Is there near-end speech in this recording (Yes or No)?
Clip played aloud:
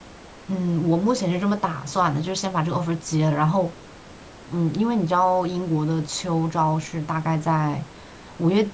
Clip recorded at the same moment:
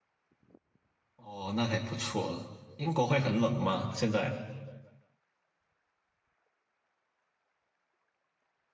Yes